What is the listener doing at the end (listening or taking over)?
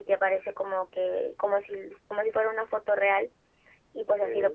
listening